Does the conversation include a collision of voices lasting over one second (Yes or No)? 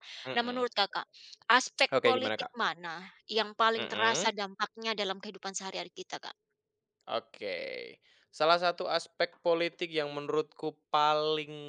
No